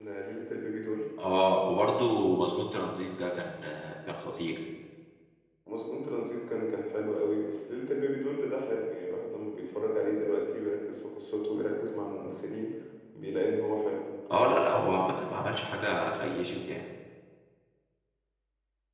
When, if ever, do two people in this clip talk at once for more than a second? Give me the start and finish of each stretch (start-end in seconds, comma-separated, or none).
none